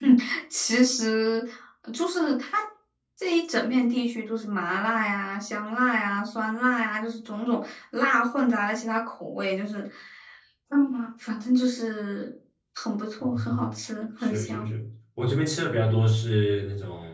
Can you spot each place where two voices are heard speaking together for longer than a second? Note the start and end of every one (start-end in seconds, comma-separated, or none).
none